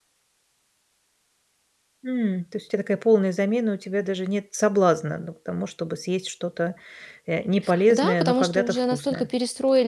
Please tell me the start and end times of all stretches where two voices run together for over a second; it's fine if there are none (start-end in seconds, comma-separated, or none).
7.9-9.3